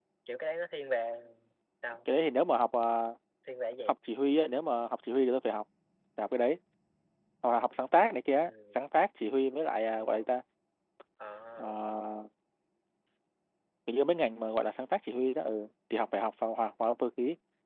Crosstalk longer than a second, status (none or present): none